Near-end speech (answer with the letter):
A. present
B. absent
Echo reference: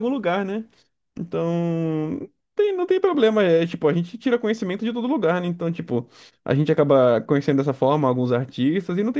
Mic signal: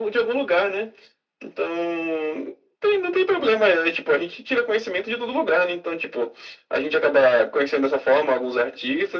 B